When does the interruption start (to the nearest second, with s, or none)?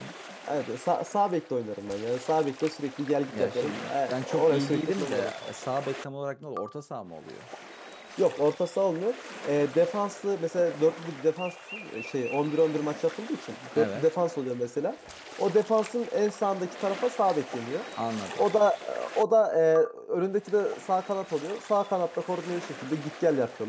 3 s